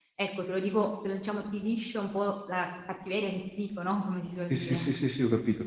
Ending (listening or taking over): taking over